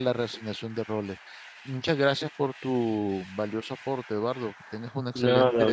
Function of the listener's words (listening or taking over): taking over